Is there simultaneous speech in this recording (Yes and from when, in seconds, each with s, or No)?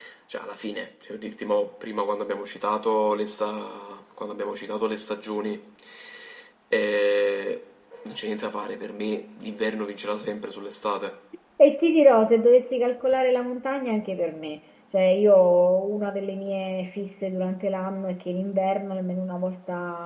No